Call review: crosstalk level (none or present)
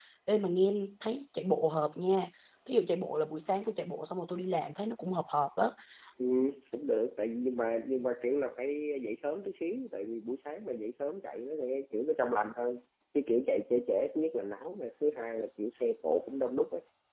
none